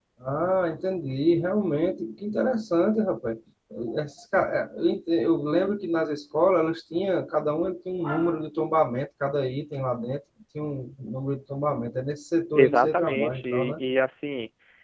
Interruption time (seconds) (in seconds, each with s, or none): 12.6 s